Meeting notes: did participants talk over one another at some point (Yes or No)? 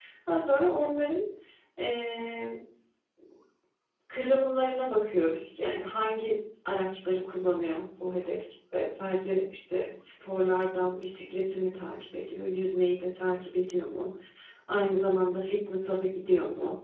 No